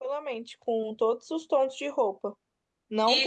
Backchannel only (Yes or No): No